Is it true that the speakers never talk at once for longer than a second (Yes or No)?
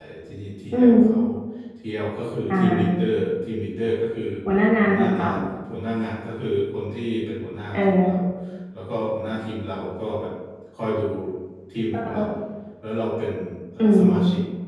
Yes